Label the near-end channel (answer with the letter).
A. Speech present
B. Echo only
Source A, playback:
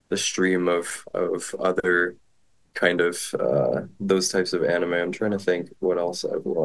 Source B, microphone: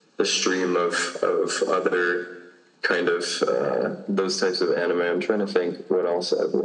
B